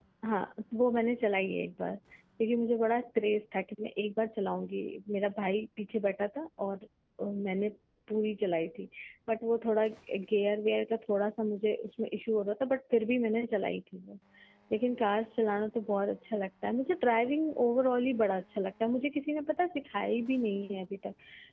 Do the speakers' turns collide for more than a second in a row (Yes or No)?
No